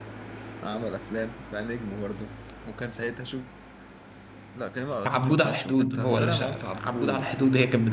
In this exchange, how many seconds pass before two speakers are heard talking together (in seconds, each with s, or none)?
5.0 s